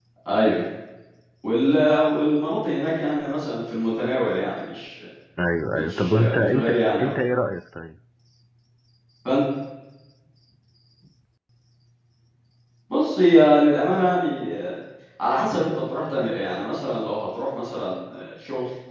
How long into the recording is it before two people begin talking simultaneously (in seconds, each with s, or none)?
5.8 s